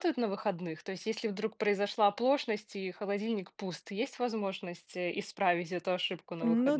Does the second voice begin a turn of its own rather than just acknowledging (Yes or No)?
Yes